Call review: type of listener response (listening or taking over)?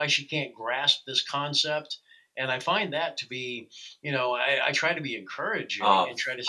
taking over